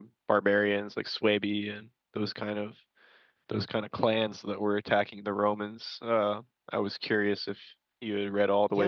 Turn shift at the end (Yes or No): Yes